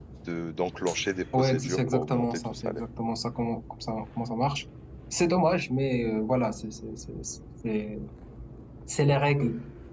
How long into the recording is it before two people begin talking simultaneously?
1.3 s

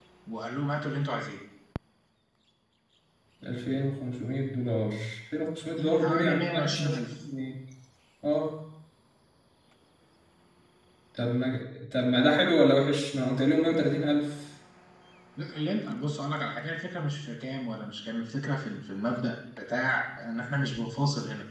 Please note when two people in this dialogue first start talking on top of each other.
5.8 s

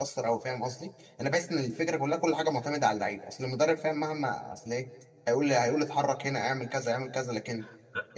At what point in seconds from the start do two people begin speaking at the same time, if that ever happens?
none

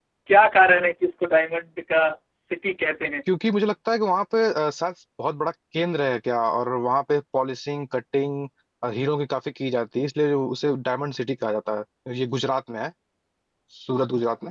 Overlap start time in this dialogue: none

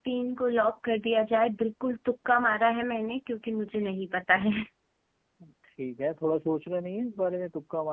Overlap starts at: none

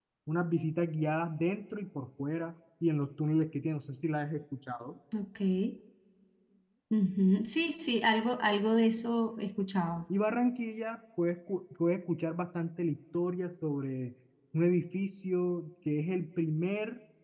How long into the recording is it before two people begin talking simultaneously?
none

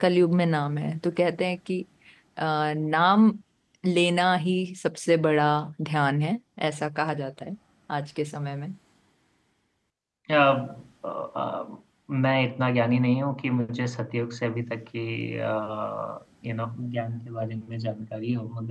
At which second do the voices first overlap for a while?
none

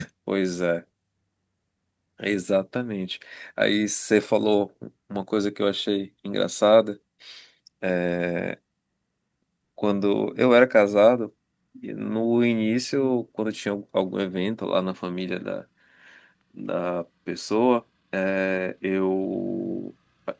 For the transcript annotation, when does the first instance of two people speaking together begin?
none

